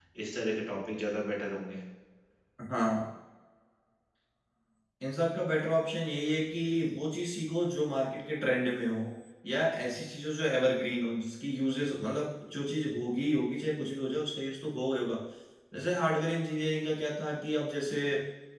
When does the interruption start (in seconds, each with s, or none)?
none